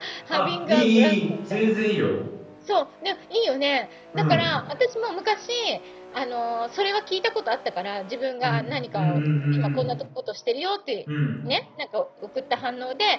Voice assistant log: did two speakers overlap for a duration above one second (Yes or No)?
Yes